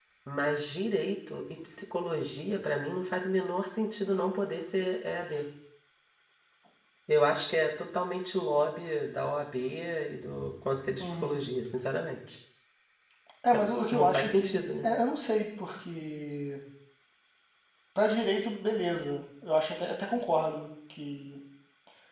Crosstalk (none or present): present